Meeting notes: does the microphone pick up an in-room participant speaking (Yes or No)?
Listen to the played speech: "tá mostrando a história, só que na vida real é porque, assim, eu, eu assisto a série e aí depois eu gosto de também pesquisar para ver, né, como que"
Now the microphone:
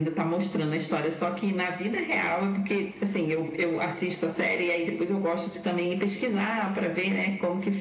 No